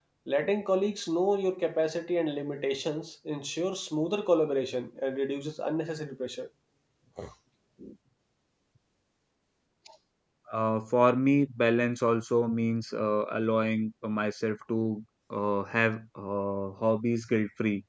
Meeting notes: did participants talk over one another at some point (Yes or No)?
No